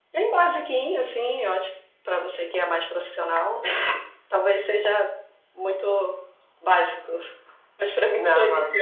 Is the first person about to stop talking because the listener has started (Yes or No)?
Yes